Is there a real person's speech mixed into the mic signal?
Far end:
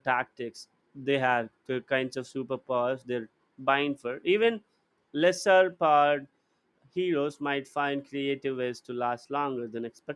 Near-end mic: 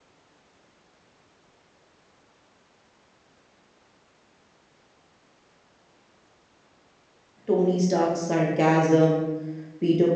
Yes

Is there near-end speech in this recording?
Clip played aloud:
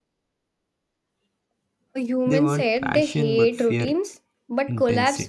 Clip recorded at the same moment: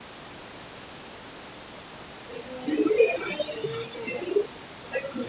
No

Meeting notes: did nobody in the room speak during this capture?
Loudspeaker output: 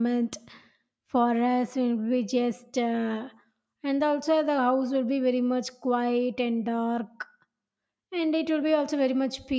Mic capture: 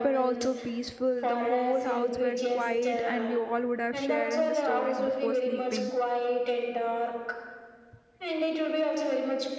No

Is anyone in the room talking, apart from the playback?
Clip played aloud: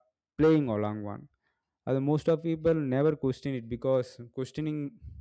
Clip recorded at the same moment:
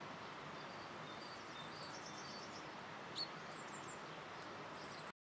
No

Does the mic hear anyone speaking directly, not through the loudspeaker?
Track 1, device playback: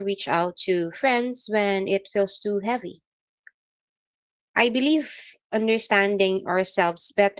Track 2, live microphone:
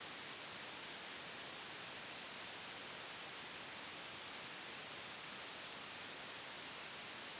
No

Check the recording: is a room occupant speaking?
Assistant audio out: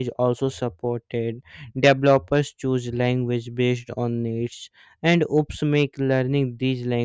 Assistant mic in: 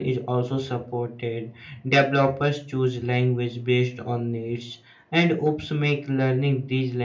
No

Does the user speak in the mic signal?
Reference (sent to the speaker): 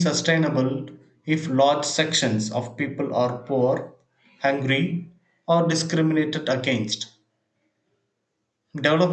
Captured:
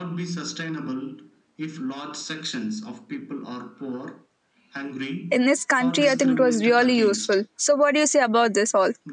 Yes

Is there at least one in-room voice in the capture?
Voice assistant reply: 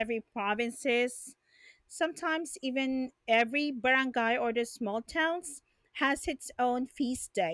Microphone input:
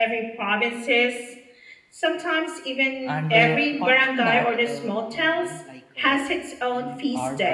Yes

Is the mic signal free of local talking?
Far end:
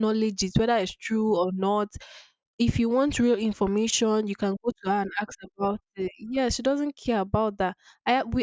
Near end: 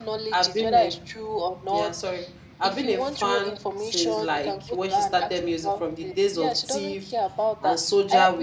No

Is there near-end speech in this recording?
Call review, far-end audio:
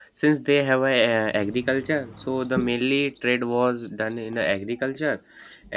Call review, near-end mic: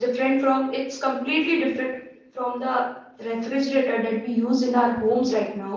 Yes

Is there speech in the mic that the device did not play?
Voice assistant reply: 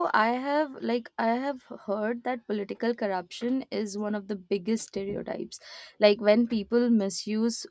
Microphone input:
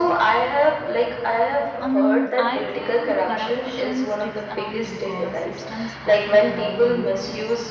Yes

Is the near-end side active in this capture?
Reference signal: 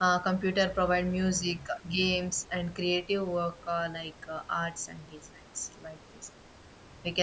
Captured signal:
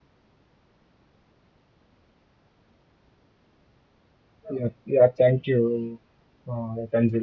Yes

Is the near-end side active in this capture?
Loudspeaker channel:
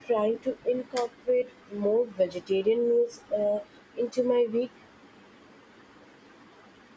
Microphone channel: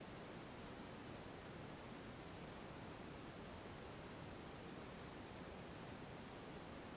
No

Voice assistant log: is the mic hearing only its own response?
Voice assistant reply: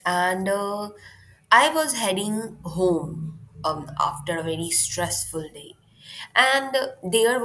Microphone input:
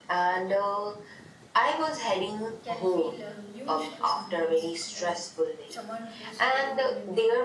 No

